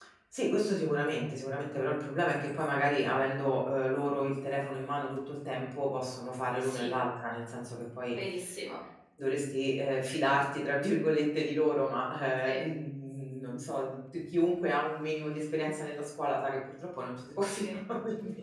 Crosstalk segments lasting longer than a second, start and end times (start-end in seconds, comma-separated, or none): none